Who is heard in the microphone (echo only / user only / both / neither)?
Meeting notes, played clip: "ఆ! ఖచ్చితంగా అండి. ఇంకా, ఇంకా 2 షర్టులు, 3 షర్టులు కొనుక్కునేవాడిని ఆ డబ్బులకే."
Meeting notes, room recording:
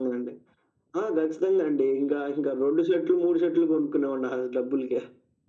echo only